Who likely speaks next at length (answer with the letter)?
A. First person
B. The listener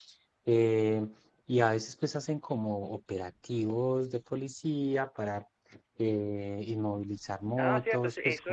B